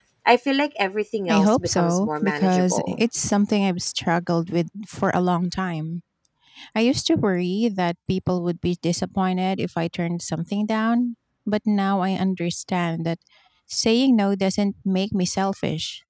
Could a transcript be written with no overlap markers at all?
No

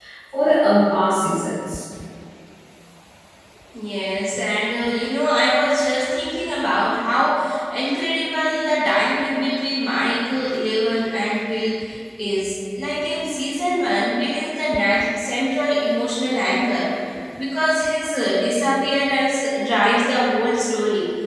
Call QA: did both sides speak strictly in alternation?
Yes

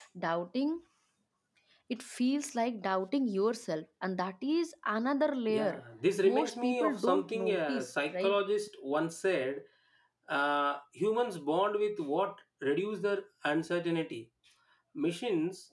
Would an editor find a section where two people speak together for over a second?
Yes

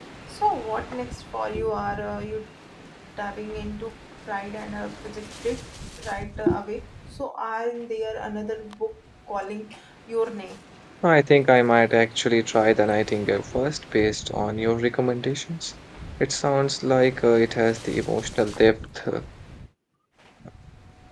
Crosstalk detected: No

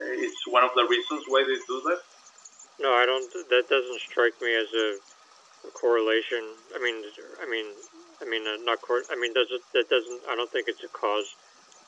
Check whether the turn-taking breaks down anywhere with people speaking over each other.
No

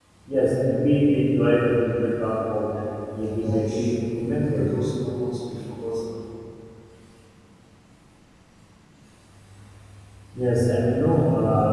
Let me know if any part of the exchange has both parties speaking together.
Yes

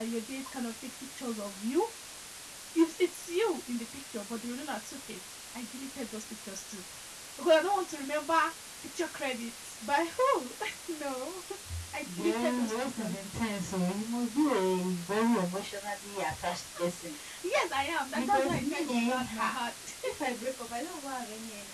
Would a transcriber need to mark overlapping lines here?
Yes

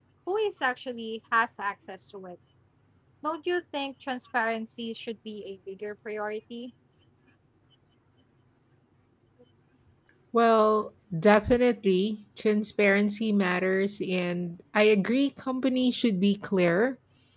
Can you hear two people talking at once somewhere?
No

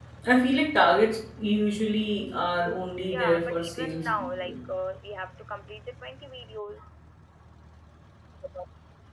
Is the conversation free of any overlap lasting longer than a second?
No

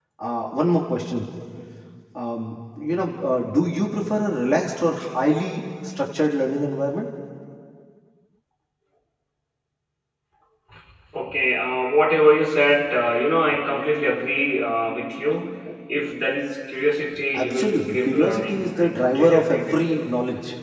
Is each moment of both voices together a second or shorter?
No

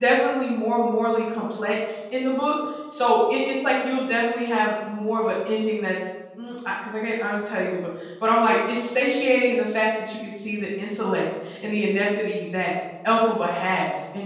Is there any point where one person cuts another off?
No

